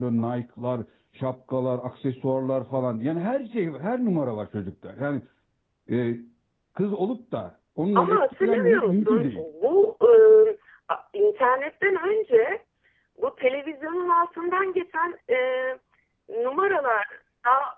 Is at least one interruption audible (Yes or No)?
Yes